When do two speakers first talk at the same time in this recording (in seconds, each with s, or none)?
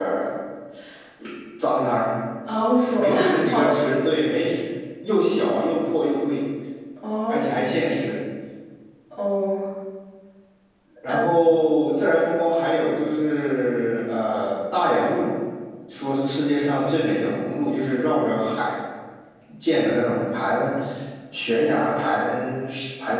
2.5 s